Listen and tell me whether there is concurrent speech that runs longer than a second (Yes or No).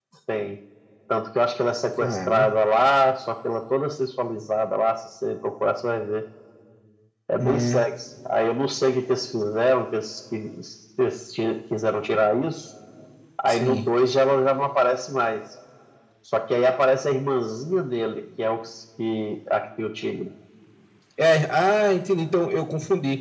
No